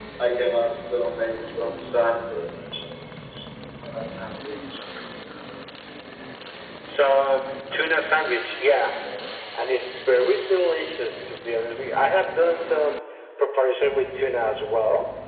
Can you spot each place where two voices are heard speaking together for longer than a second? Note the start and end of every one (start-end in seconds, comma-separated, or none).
none